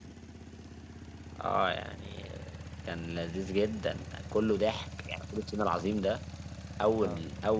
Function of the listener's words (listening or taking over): listening